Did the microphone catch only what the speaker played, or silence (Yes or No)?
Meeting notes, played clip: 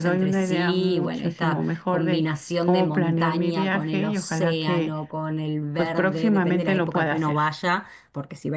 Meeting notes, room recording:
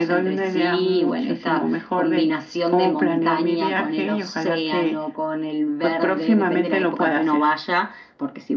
Yes